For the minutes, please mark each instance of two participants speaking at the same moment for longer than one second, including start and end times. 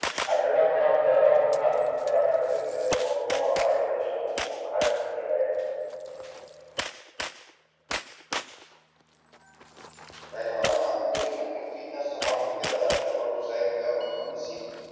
none

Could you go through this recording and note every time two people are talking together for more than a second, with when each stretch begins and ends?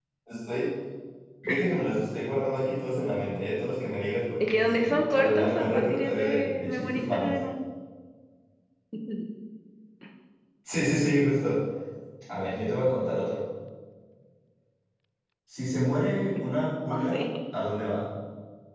4.5-7.3

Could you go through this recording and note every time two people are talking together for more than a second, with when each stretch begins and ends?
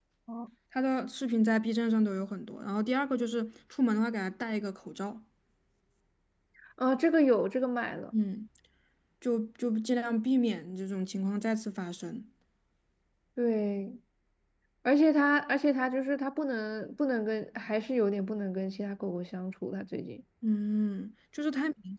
none

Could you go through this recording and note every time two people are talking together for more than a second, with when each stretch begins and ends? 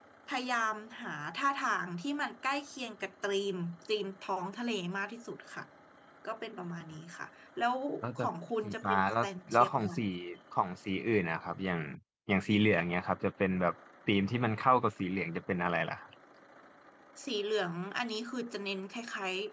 8.6-10.0

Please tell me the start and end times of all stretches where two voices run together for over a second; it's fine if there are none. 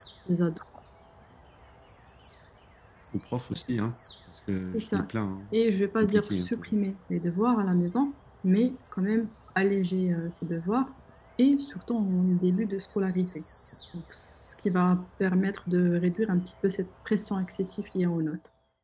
5.5-6.8

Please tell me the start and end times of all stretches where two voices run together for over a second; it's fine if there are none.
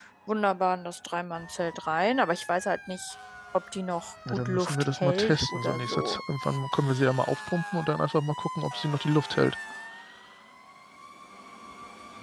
4.3-6.2

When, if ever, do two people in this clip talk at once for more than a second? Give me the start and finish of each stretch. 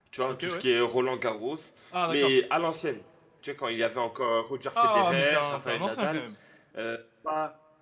4.8-6.2

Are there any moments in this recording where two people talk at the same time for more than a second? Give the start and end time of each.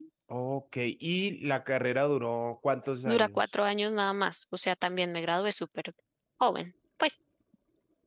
none

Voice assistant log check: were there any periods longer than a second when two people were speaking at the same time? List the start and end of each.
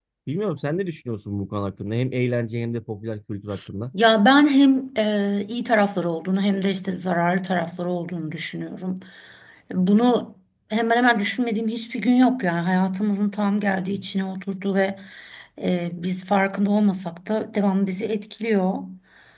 none

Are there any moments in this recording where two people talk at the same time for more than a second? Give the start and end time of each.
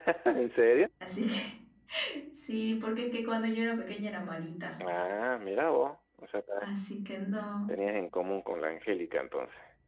none

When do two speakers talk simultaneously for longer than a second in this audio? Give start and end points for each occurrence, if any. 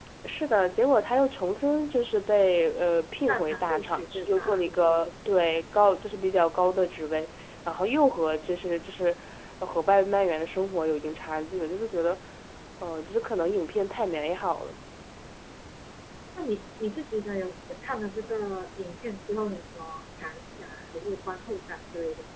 3.3-4.6

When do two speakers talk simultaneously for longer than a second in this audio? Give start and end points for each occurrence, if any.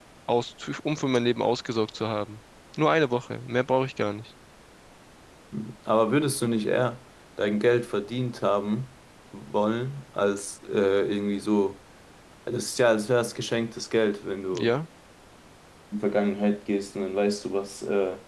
none

